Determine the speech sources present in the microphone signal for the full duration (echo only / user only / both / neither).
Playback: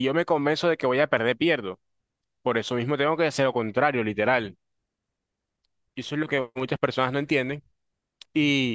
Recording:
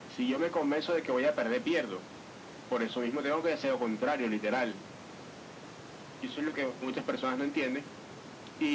echo only